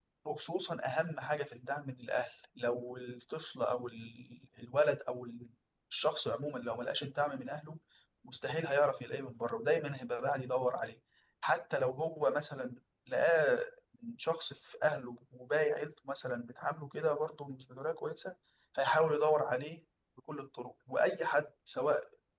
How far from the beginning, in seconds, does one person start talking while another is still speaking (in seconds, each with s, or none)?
none